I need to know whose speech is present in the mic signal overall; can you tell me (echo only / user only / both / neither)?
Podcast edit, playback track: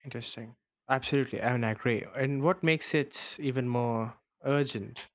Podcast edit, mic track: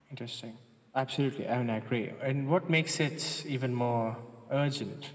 echo only